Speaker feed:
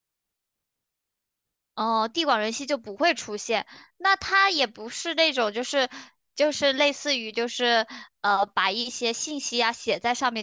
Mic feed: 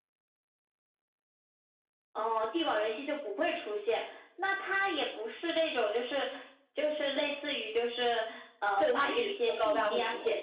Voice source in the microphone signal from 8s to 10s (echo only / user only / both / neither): both